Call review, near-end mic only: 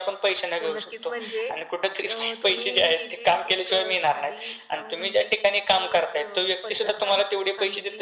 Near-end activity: present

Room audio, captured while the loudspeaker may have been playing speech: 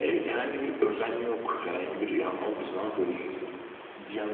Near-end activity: none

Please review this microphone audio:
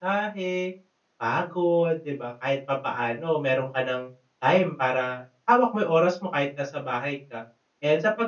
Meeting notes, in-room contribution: present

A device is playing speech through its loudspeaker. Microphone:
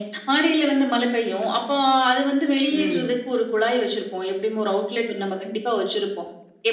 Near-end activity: present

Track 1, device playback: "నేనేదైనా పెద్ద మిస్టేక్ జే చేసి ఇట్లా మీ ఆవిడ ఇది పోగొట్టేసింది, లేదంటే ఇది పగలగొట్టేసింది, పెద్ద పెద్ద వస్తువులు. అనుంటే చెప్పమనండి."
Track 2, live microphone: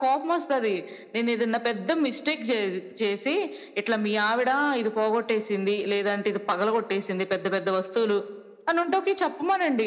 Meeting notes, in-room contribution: none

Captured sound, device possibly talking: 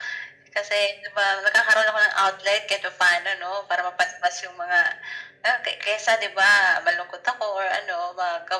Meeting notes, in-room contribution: none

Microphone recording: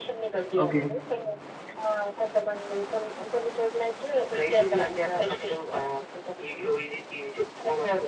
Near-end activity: present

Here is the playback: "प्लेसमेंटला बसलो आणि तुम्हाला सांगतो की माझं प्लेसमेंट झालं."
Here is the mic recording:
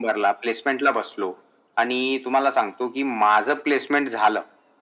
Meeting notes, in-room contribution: none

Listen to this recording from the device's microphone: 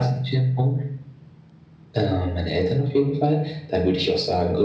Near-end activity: none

